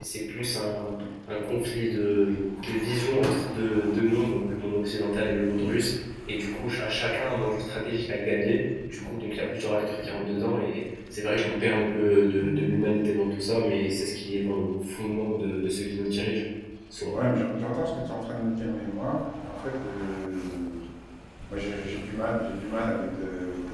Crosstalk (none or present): none